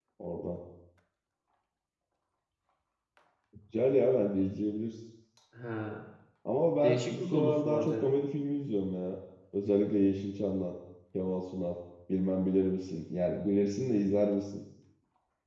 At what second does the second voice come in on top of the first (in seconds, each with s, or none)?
6.8 s